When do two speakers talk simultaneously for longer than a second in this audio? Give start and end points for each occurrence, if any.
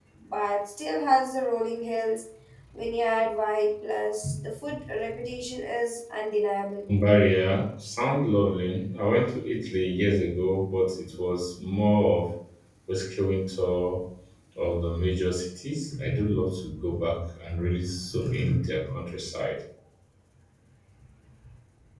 none

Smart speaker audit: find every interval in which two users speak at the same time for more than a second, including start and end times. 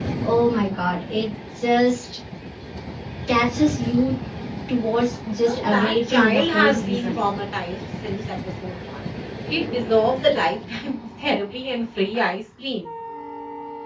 5.4-7.2

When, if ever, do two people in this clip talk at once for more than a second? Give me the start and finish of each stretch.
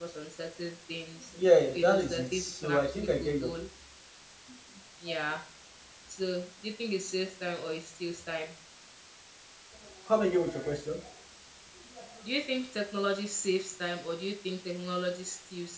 1.7-3.5

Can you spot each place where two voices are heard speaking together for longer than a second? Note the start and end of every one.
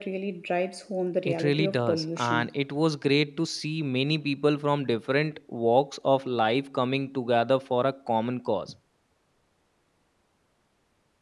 1.2-2.5

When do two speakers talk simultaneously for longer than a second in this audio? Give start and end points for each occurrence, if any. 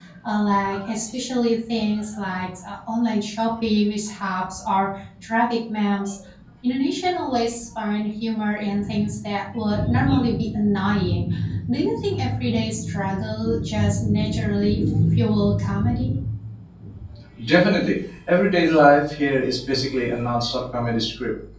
none

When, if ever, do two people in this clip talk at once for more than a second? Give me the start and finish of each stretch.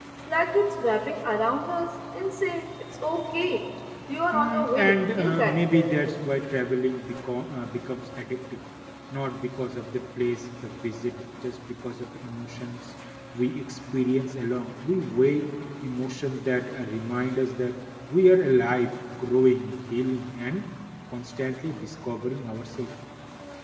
4.3-5.9

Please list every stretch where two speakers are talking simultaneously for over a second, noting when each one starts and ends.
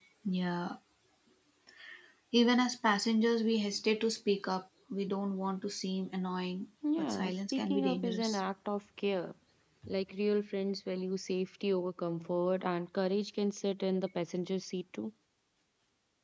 7.0-8.4

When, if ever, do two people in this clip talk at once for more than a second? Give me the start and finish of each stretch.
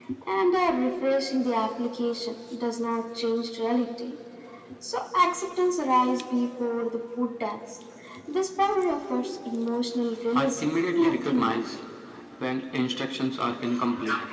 10.3-11.6

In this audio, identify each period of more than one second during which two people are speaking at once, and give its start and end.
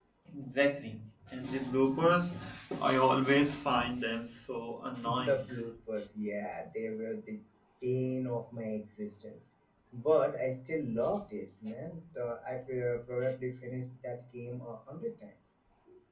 none

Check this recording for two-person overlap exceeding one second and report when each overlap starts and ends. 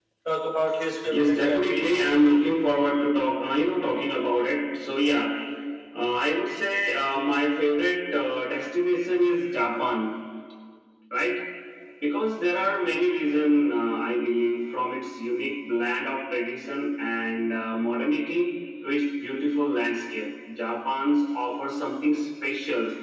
1.1-2.3

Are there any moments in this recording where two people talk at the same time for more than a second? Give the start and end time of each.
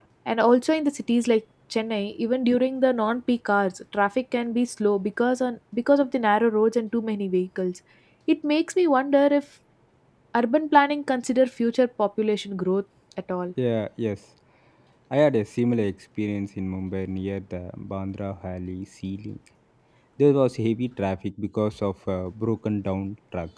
none

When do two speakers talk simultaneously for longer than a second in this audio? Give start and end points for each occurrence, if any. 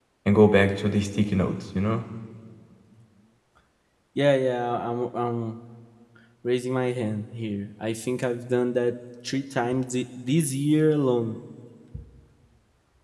none

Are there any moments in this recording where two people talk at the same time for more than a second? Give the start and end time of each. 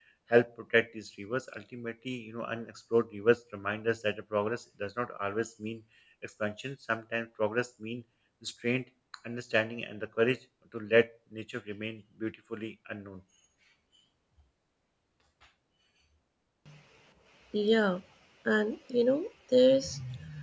none

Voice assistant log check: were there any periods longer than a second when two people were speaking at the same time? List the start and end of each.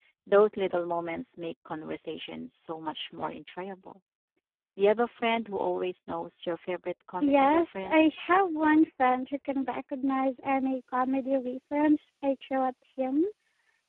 7.2-8.4

